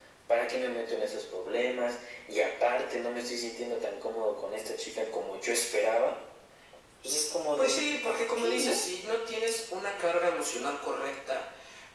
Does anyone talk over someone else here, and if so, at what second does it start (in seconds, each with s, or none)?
7.6 s